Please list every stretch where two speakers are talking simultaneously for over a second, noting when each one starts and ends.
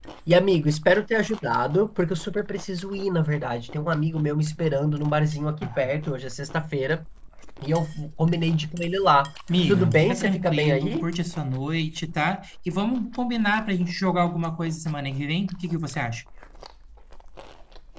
9.7-11.1

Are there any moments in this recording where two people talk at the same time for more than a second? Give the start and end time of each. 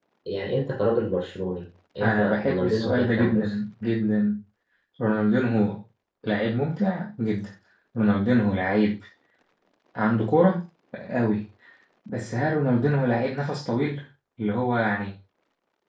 2.0-3.5

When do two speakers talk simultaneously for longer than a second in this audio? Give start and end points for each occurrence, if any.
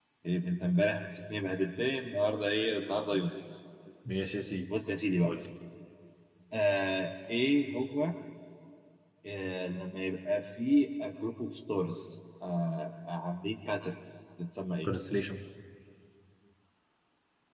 none

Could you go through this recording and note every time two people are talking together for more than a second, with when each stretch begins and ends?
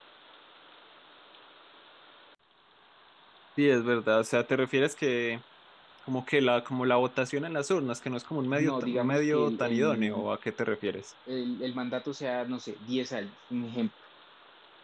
8.5-10.3

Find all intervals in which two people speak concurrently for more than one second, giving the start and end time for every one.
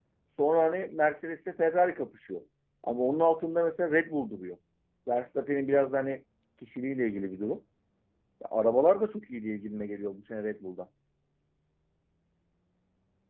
none

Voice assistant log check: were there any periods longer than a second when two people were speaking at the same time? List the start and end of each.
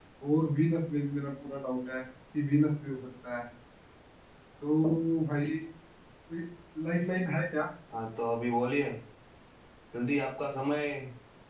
none

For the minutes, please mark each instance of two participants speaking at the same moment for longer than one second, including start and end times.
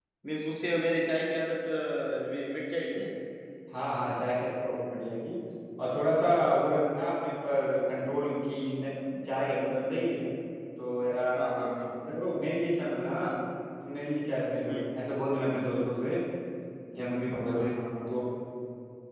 none

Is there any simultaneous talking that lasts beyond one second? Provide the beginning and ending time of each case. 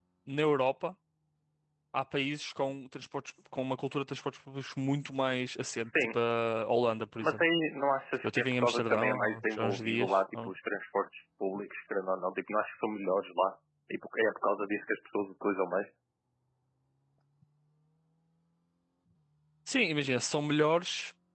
8.2-10.5

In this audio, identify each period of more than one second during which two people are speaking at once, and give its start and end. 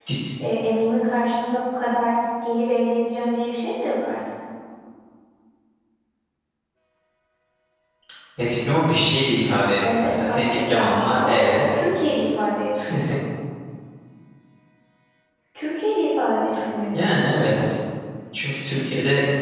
9.9-11.6

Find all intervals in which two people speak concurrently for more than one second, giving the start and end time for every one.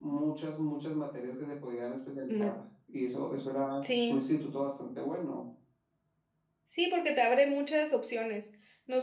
none

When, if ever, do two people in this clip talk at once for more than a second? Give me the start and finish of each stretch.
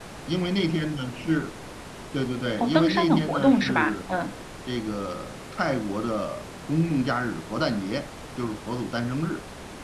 2.6-4.1

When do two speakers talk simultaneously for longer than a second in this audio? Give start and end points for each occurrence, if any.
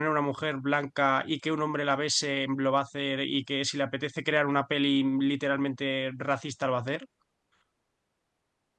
none

